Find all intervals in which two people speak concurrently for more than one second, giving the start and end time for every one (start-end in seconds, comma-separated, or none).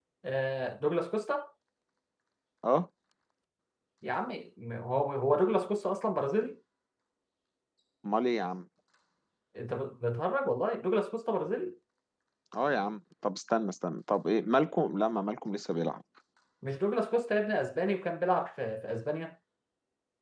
none